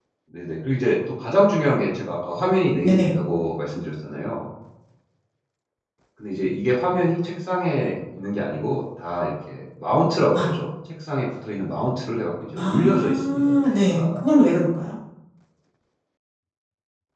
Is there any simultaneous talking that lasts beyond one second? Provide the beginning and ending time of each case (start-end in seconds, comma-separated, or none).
12.6-14.2